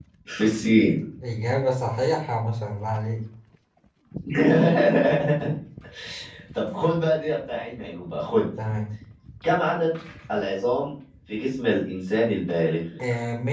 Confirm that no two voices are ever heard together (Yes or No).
Yes